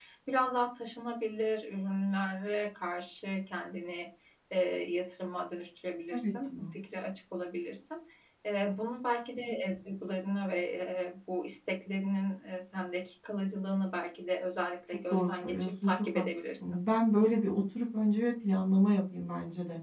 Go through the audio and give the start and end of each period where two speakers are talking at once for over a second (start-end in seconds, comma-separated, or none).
14.9-16.8